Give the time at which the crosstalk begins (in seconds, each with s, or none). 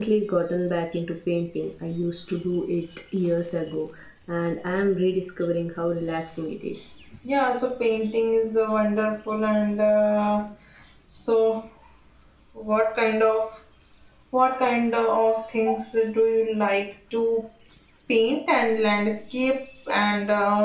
none